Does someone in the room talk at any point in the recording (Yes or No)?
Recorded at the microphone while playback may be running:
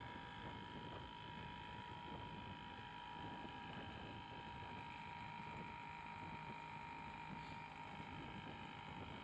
No